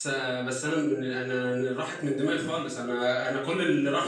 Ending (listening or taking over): listening